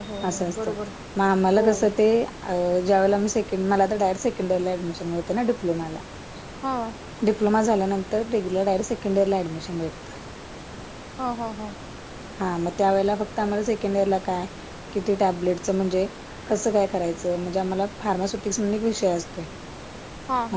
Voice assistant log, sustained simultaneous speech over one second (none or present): none